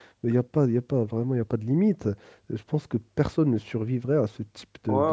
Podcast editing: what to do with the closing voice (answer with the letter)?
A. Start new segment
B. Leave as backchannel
A